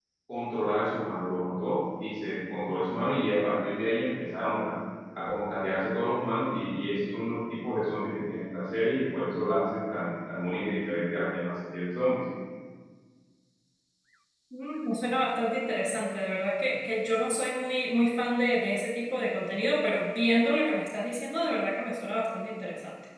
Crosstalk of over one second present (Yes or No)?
No